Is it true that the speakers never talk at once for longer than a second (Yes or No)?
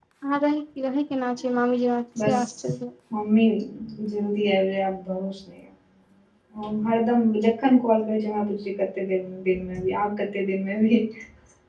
Yes